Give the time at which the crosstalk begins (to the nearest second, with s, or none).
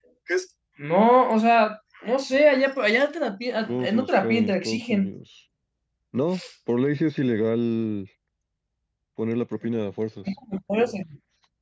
4 s